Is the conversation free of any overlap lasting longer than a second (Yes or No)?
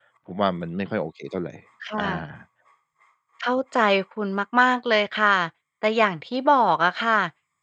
Yes